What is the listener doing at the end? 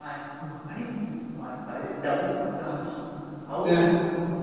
listening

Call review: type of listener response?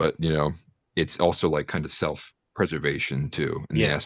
listening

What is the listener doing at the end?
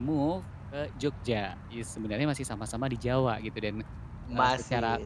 listening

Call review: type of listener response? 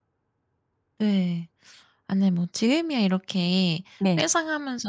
listening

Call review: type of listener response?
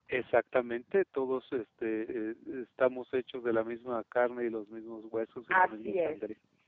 taking over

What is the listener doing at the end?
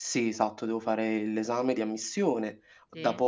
listening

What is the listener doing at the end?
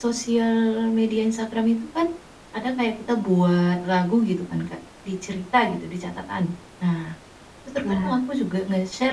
listening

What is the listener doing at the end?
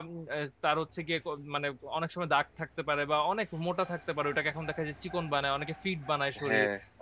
taking over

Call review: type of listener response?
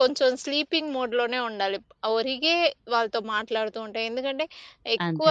listening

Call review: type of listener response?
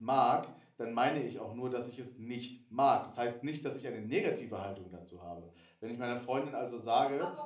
taking over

